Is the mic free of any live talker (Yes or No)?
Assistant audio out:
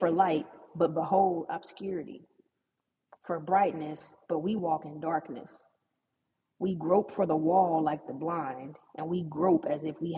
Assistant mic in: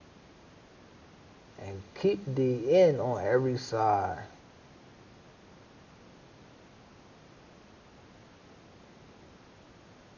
No